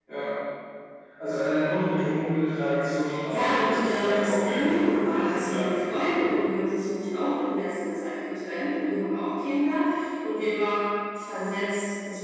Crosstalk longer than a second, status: present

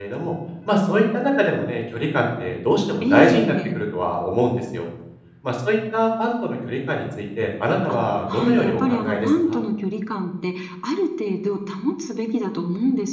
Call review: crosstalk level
present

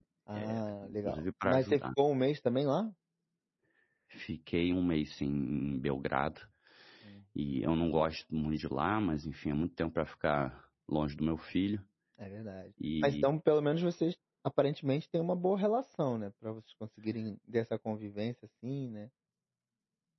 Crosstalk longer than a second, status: present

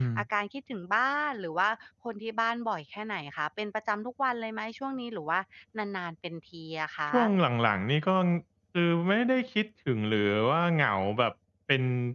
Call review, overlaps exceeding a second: none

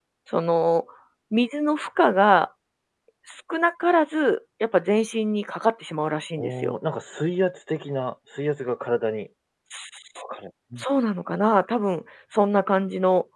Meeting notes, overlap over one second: none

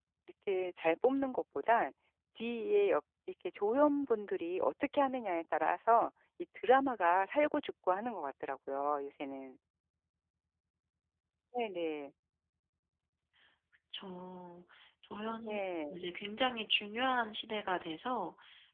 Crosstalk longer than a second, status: none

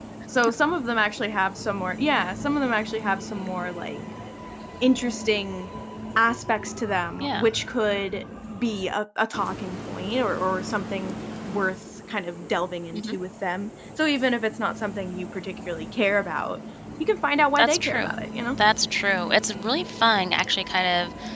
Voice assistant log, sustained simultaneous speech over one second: none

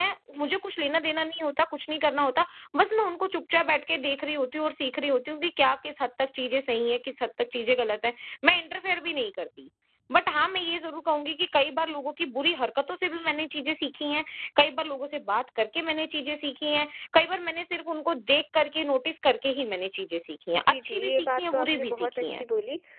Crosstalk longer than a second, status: present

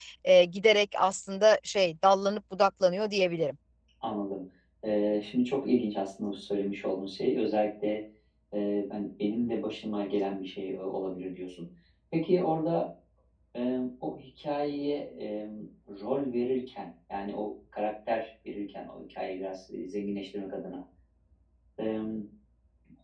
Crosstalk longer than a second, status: none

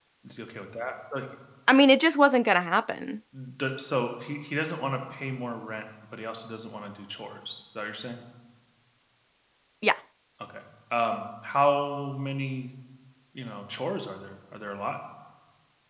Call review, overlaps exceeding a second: none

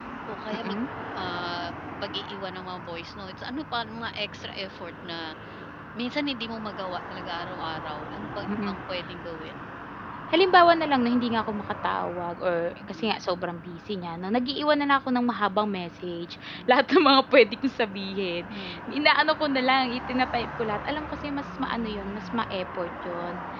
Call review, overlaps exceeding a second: none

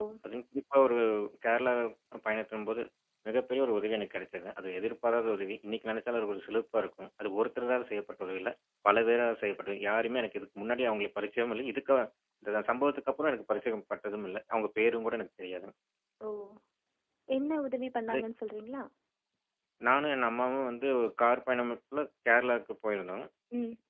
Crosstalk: none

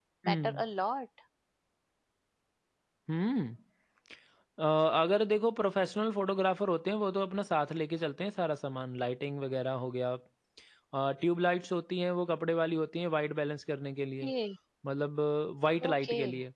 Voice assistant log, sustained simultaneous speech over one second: none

